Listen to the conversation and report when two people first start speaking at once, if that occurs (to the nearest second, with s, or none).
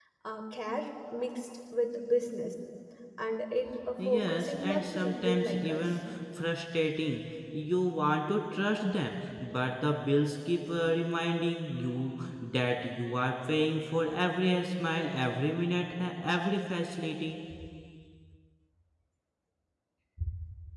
4 s